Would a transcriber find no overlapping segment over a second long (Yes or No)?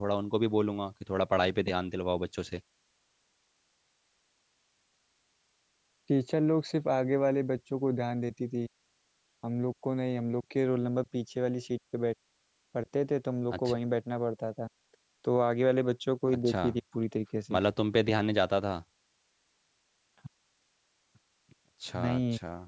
Yes